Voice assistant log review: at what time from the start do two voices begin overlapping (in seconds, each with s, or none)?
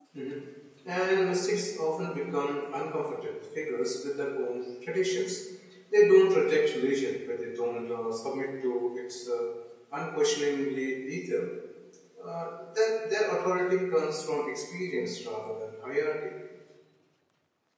none